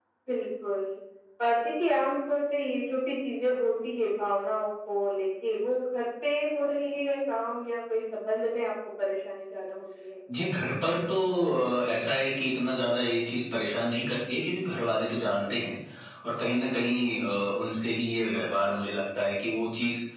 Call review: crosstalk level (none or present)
none